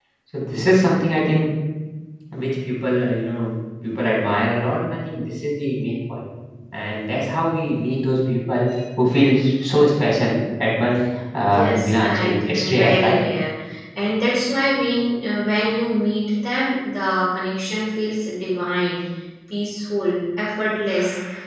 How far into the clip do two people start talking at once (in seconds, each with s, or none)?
11.5 s